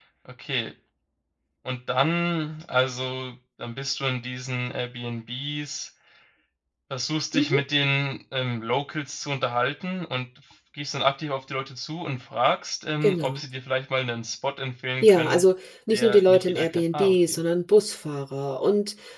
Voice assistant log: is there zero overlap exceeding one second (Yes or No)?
No